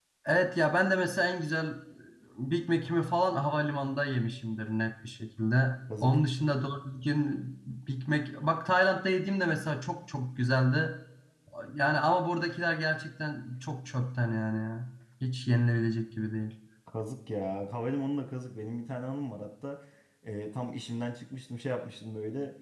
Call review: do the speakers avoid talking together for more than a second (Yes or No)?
Yes